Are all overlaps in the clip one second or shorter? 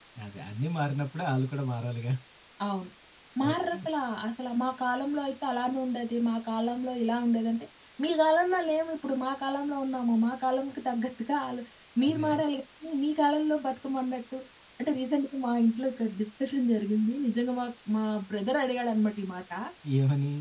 Yes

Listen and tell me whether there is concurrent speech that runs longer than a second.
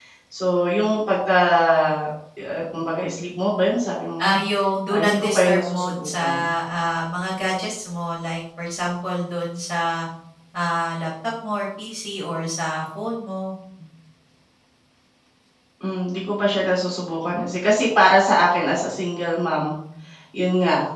Yes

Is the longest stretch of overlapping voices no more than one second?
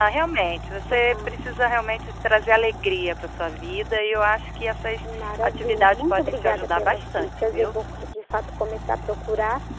No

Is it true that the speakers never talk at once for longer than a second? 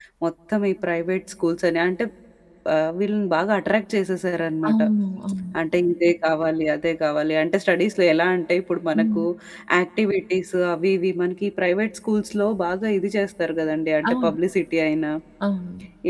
Yes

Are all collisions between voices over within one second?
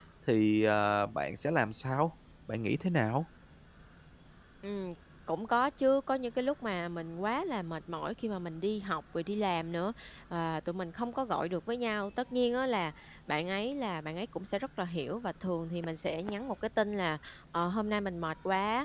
Yes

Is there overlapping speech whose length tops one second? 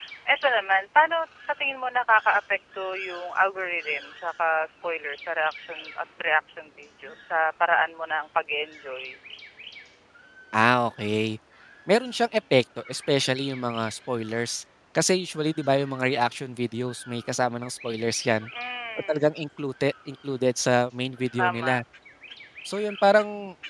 No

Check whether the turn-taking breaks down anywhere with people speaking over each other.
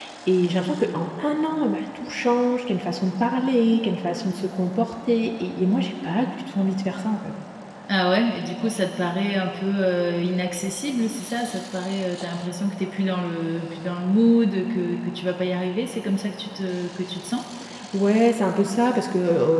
No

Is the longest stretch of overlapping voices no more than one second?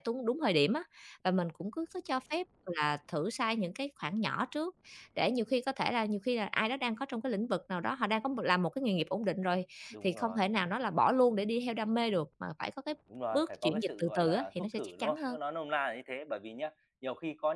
No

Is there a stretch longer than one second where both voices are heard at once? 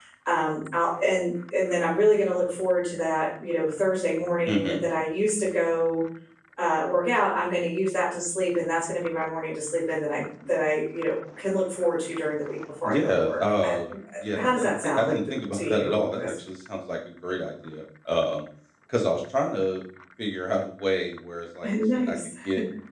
Yes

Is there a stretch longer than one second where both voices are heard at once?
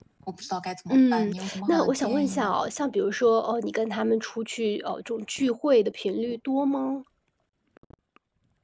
Yes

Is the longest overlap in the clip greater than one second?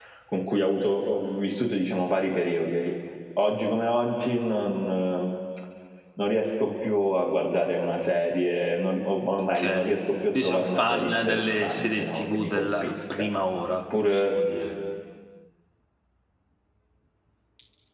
Yes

